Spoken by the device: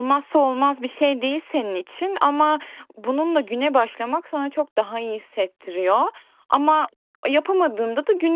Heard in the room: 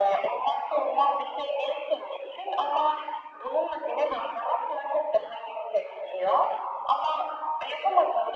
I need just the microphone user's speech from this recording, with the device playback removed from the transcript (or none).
none